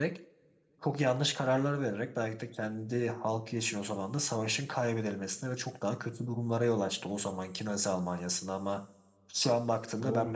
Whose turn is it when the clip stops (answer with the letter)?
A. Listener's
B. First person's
B